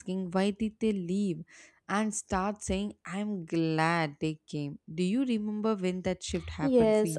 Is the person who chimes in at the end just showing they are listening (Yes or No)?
No